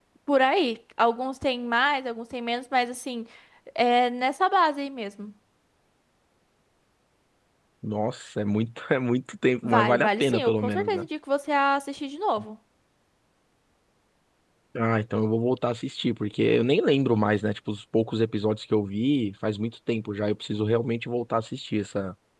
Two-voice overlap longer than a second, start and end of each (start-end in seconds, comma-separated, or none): 9.6-11.1